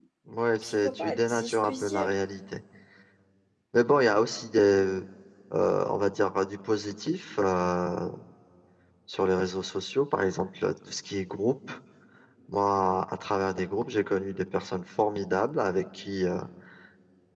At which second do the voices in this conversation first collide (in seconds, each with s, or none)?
0.6 s